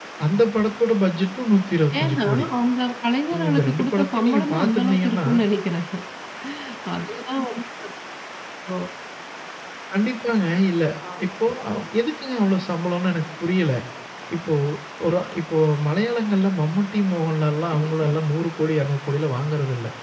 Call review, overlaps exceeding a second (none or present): present